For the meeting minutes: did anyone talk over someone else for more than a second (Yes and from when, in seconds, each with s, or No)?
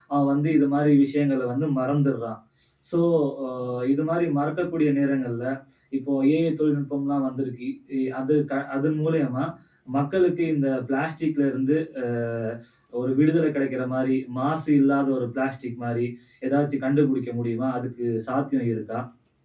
No